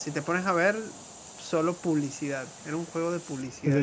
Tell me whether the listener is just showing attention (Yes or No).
No